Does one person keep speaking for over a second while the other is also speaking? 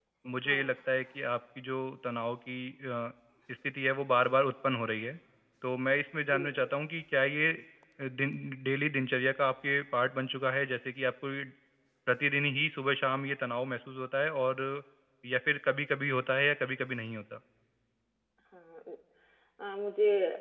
No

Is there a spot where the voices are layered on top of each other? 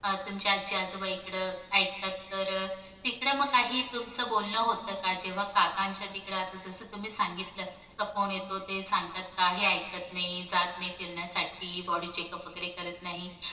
No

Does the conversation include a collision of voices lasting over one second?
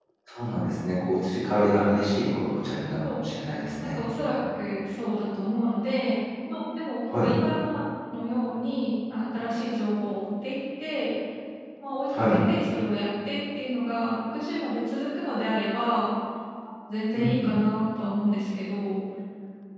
No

